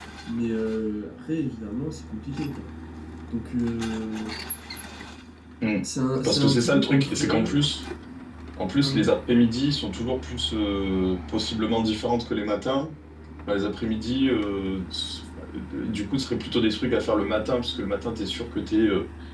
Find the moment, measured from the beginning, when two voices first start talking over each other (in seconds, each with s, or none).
6.2 s